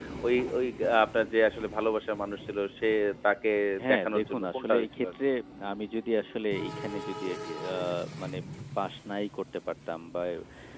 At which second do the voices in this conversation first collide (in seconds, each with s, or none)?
3.9 s